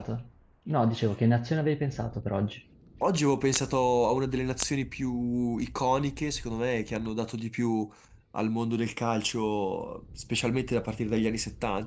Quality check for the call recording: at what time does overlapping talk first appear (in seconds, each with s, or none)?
none